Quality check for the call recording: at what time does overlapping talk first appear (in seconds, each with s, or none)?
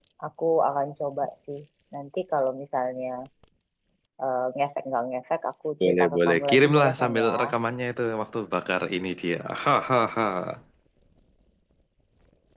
5.8 s